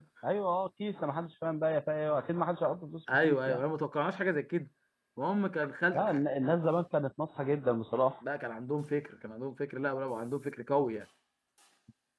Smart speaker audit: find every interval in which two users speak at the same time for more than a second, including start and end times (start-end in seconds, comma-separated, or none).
none